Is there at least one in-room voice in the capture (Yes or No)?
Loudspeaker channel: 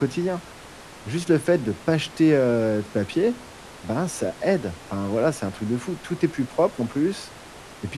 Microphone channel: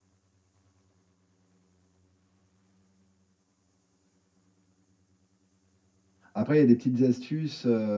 Yes